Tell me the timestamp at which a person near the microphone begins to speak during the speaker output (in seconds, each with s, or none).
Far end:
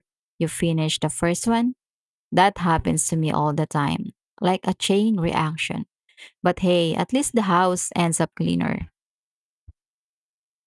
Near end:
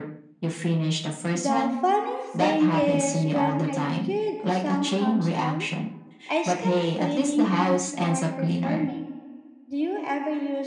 1.3 s